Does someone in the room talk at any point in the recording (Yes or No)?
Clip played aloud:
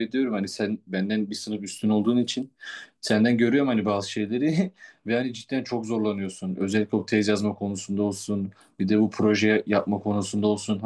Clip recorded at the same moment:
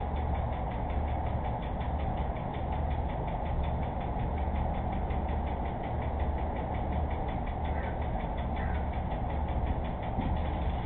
No